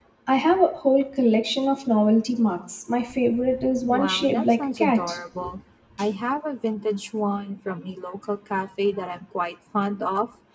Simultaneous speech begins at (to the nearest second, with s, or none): 4 s